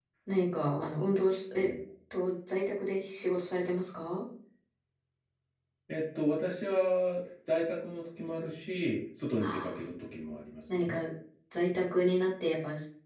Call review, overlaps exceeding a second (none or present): none